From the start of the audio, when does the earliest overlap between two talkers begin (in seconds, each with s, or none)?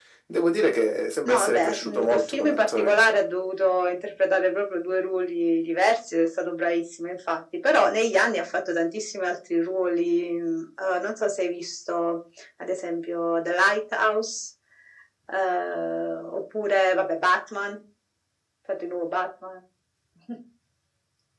1.3 s